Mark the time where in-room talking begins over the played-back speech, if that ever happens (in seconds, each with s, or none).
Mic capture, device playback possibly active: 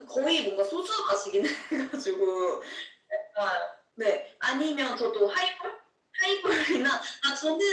none